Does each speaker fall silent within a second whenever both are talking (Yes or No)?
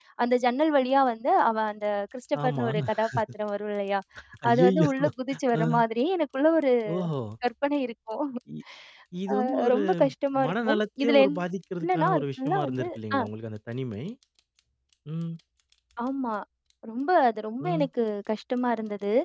No